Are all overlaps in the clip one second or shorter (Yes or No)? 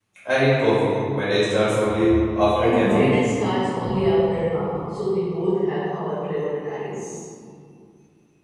Yes